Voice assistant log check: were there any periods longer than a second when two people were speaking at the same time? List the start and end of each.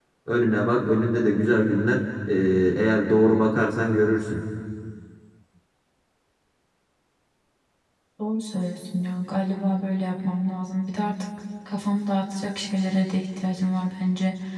none

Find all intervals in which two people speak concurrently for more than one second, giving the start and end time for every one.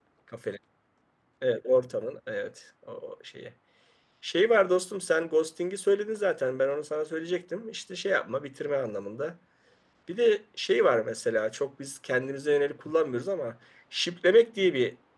none

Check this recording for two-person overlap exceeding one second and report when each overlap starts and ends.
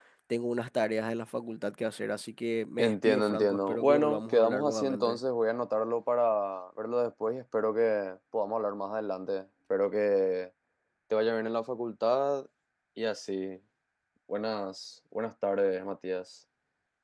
2.8-5.2

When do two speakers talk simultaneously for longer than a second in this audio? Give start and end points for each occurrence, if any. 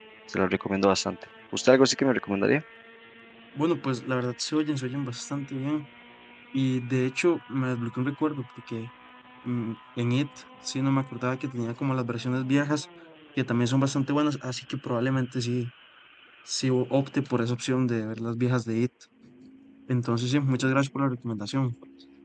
none

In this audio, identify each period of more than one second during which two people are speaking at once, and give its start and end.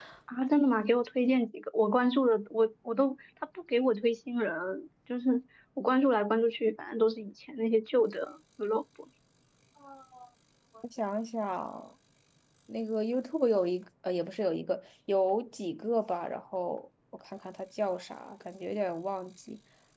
none

